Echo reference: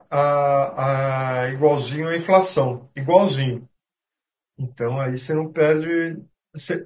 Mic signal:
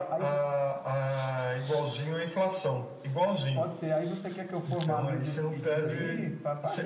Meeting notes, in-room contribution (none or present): present